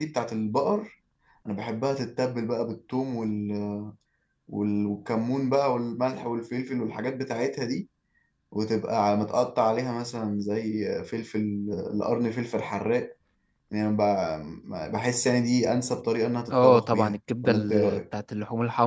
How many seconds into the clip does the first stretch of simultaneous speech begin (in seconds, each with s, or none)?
16.5 s